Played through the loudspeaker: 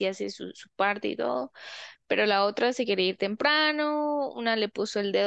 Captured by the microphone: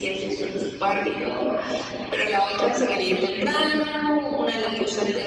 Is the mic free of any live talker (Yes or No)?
Yes